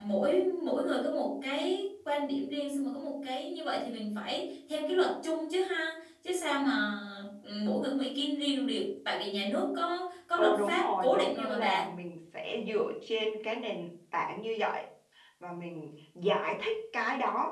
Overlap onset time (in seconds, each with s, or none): 10.4 s